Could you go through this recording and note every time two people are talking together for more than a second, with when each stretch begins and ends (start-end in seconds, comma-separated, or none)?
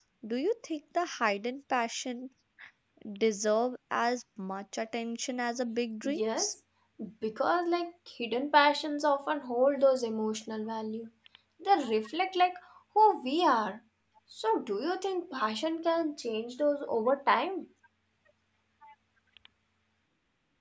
none